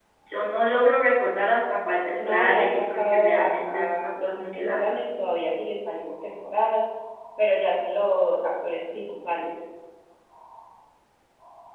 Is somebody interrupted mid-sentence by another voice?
Yes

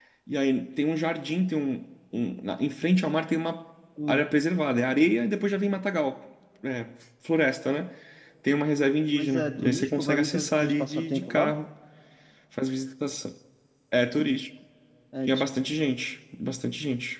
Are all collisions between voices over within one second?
No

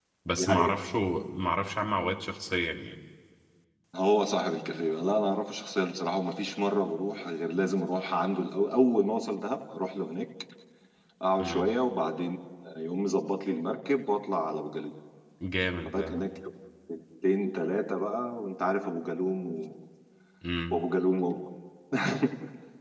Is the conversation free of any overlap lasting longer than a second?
Yes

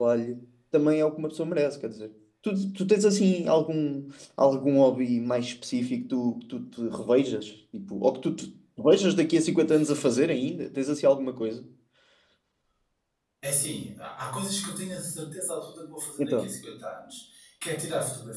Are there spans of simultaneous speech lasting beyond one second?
No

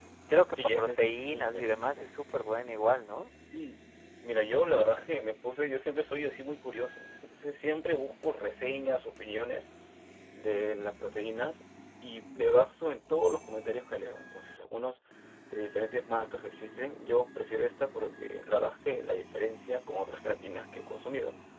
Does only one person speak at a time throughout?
No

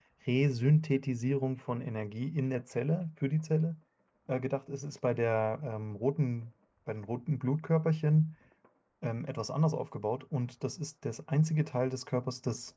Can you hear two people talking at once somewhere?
No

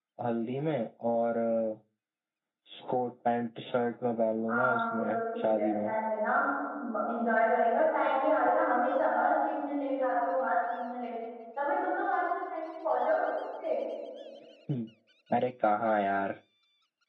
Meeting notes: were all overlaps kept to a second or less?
No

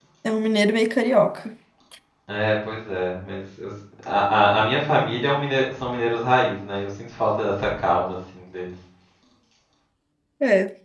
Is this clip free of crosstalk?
Yes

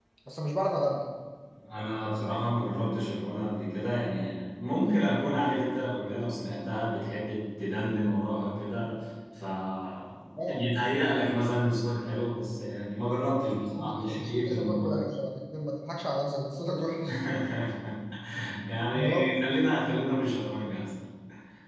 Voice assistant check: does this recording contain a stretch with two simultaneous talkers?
Yes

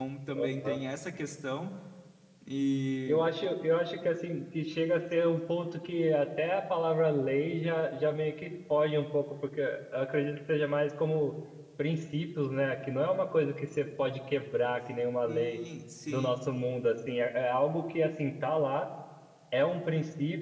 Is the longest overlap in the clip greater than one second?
No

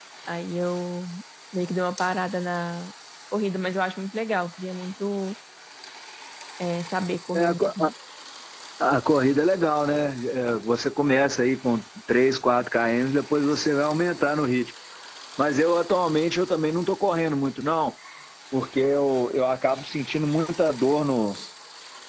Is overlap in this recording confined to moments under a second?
Yes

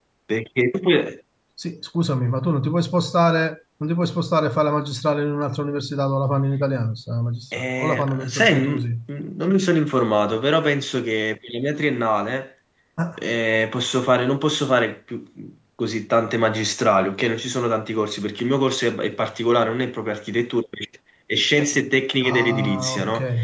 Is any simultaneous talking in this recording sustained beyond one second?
Yes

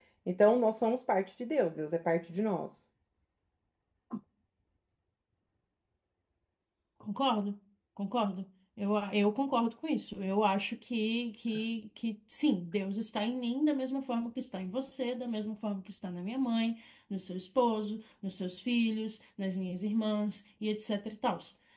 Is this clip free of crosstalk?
Yes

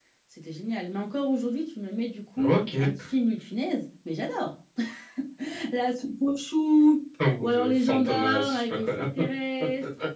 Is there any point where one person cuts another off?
Yes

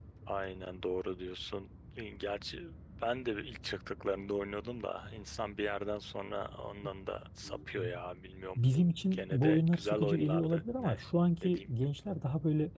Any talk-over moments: Yes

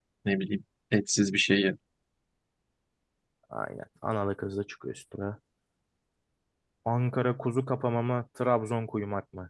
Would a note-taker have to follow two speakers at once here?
No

